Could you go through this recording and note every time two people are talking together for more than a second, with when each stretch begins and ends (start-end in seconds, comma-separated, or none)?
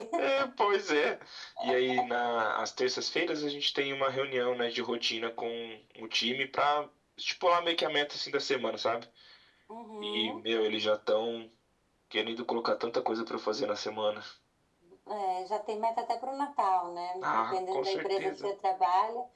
17.2-18.5